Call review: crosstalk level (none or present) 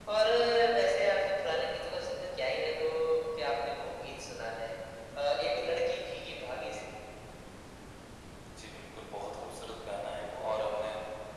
none